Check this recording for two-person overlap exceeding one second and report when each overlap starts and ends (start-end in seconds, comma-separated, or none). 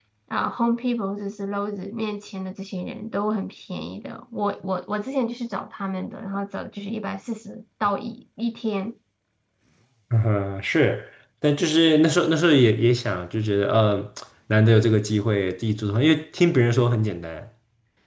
none